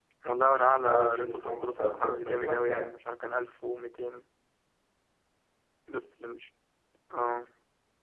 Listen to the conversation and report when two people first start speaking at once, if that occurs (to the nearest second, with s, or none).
1 s